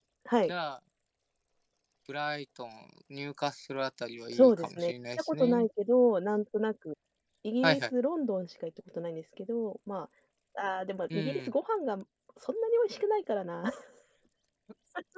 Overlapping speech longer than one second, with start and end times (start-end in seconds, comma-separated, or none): 4.3-5.7